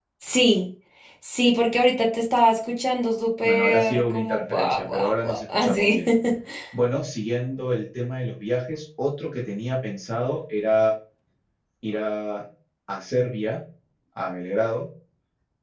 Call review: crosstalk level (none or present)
present